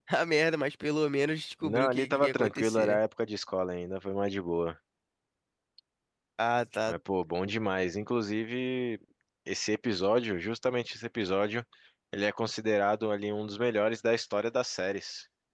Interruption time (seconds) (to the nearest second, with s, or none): 2 s